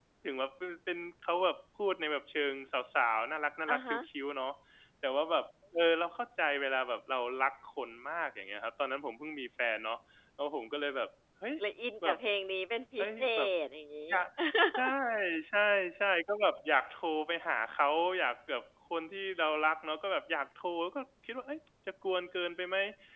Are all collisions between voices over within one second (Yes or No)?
Yes